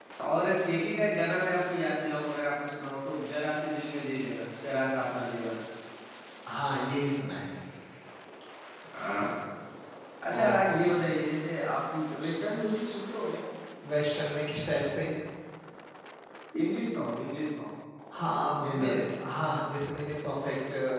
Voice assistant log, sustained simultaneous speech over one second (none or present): none